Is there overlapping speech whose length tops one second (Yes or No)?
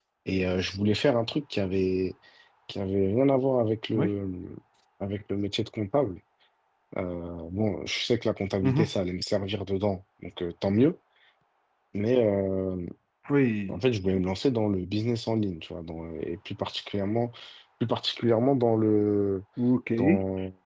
No